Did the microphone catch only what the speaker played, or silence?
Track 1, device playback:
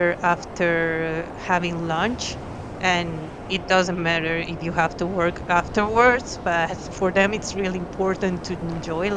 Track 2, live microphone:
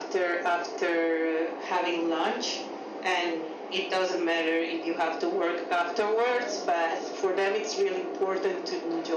No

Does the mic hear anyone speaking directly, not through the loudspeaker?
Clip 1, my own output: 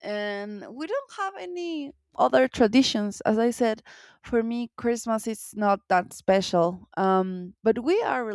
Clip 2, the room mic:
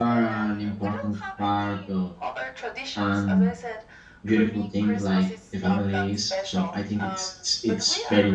Yes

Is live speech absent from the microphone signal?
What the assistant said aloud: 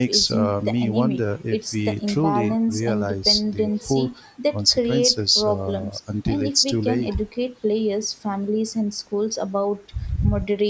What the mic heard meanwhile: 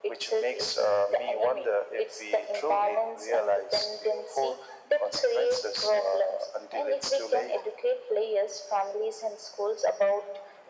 Yes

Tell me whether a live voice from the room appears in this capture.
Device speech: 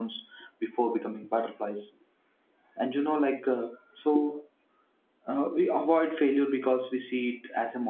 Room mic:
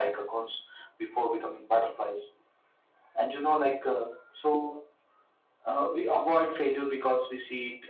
No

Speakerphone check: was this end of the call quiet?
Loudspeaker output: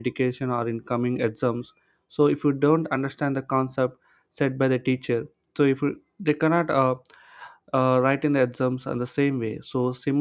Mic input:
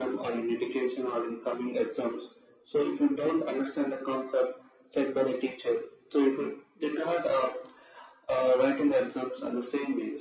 Yes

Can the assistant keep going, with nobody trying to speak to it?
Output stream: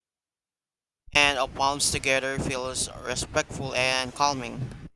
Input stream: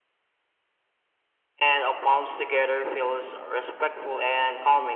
Yes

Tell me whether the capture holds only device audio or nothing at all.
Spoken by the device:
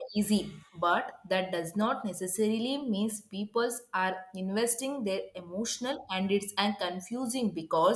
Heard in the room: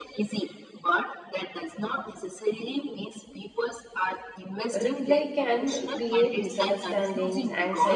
No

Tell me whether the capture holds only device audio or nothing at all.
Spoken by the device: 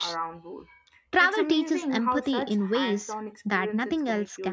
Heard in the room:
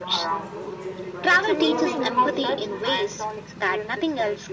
No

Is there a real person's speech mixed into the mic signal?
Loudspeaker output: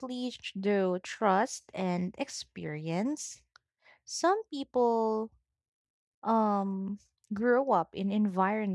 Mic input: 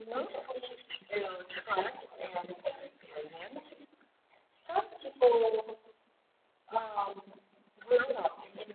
No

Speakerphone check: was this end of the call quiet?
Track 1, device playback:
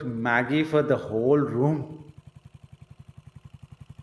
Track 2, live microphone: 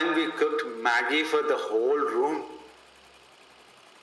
Yes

